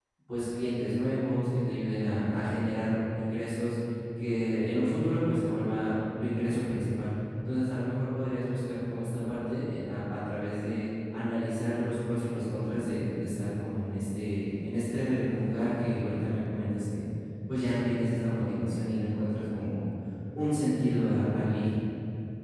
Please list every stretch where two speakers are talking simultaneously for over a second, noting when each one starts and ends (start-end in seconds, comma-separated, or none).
none